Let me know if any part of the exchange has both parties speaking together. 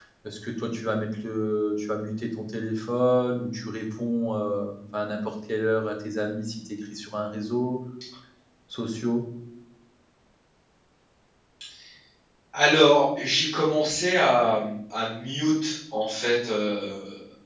No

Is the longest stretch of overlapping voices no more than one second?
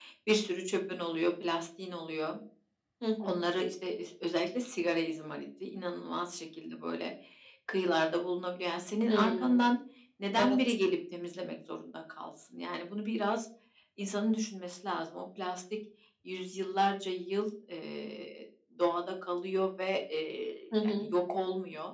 Yes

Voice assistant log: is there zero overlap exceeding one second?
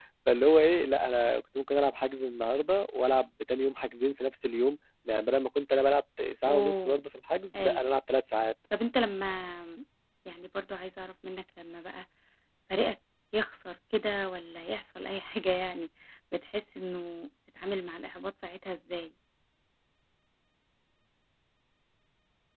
Yes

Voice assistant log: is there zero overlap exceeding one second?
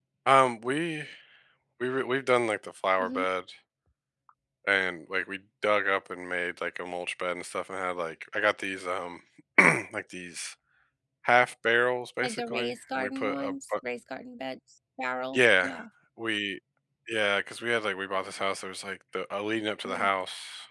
No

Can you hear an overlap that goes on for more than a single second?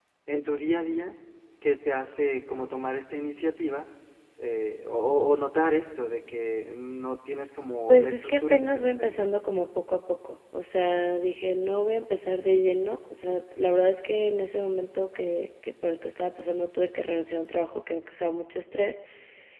Yes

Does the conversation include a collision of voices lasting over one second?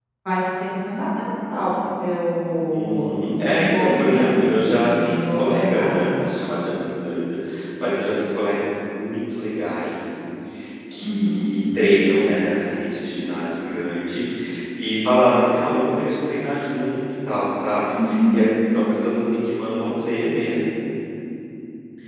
Yes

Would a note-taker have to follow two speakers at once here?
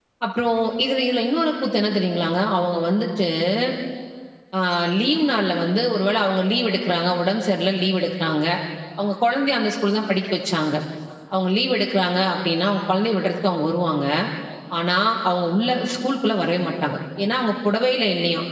No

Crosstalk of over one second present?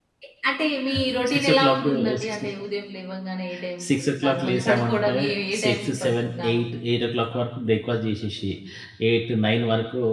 Yes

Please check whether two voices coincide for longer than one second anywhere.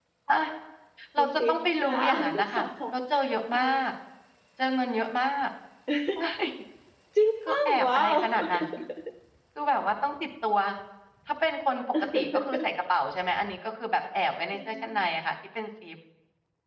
Yes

